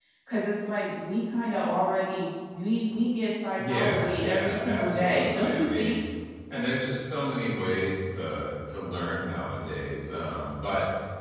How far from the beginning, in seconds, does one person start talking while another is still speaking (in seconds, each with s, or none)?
3.6 s